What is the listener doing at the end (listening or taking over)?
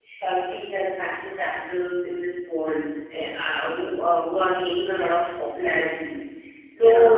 listening